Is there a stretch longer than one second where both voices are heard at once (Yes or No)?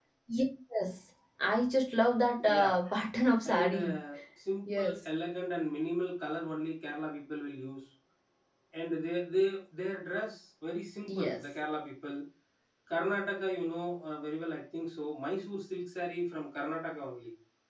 No